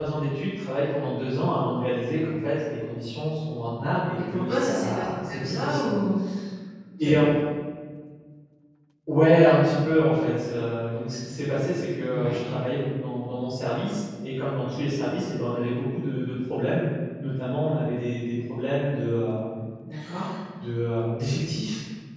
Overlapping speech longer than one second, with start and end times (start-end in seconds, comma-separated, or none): 4.2-6.0